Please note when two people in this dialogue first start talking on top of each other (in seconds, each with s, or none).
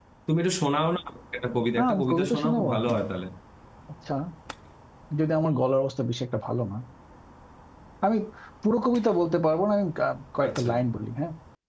1.8 s